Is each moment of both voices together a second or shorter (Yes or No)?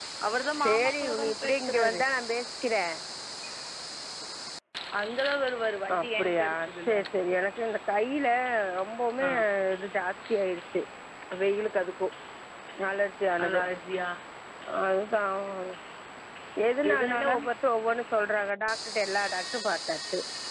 No